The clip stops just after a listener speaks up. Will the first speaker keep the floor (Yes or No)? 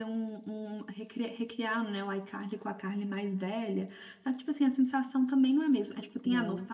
Yes